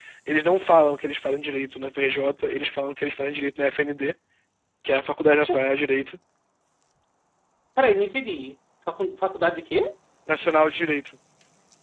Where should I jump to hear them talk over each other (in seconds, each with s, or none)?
none